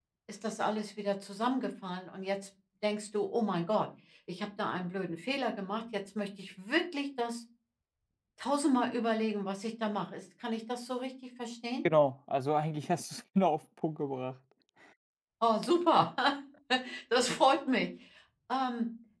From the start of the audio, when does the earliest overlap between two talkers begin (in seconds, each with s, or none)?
none